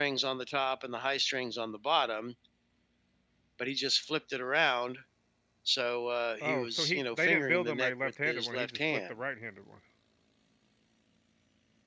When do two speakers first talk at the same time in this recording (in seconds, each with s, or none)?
6.4 s